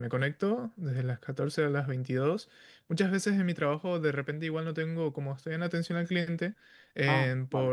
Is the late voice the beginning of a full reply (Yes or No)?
No